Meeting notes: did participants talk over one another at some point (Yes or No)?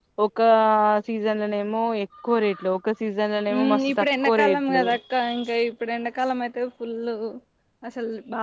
Yes